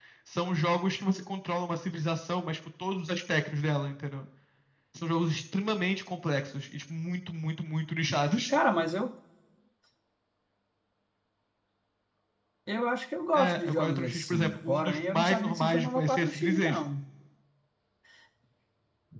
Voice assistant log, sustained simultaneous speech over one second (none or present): present